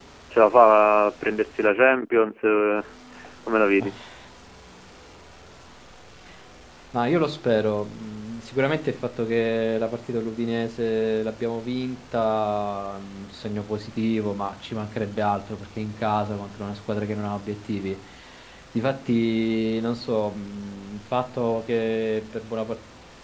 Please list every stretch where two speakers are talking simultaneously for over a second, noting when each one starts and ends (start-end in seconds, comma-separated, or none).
none